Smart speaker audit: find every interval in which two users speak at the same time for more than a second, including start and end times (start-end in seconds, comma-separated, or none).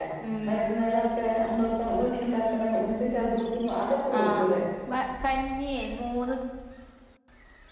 none